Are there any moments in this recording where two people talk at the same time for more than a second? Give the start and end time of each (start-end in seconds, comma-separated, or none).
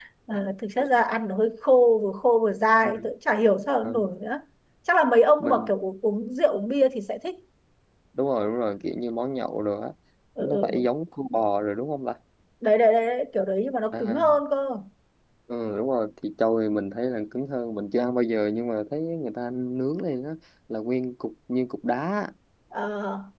none